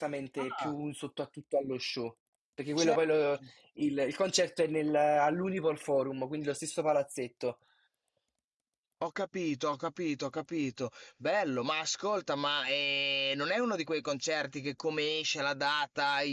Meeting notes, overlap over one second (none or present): none